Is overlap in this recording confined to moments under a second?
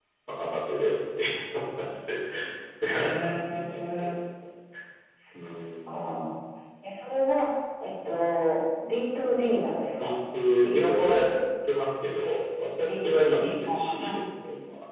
No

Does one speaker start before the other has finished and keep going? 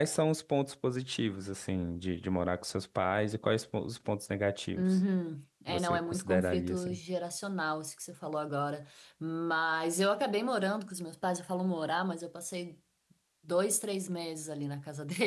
Yes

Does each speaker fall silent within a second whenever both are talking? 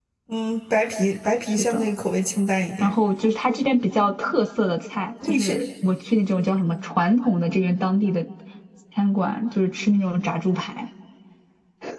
Yes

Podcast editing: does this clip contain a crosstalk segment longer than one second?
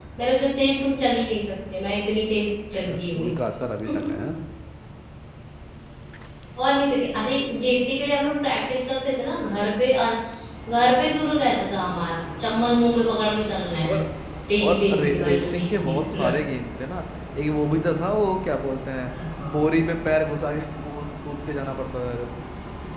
Yes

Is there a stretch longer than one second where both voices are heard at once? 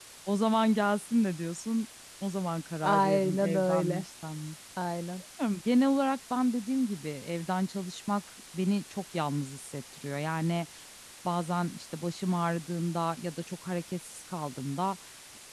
Yes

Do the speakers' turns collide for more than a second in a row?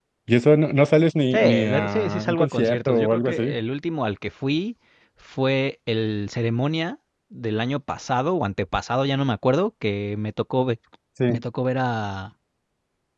Yes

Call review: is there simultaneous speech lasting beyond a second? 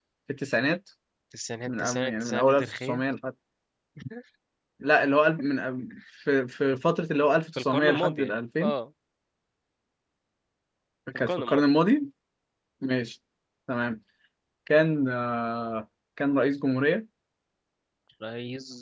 Yes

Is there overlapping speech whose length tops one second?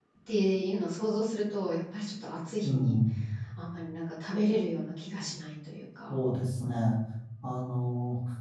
No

